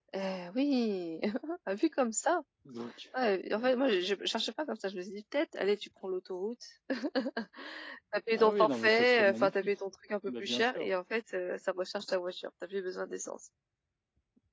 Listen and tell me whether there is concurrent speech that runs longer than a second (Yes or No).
Yes